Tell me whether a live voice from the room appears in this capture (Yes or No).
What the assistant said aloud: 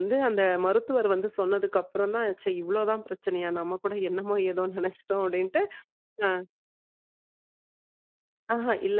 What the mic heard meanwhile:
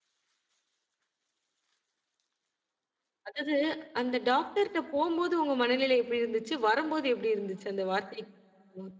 Yes